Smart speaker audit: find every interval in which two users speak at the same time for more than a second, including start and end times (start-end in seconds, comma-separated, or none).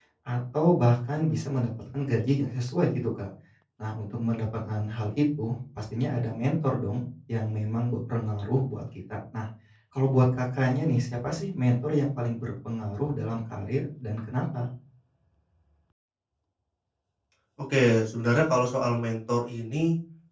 none